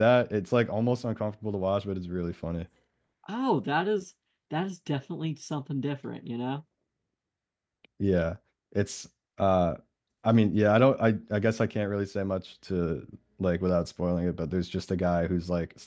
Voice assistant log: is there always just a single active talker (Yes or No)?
Yes